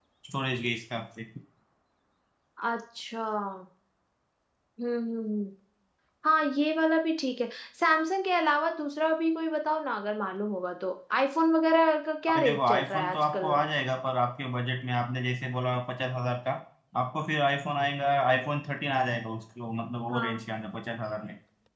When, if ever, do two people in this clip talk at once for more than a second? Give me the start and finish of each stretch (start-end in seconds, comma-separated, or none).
12.3-13.5